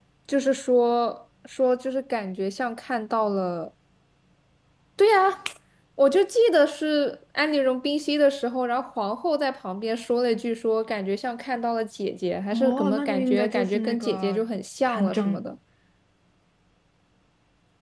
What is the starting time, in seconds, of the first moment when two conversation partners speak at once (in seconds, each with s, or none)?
12.5 s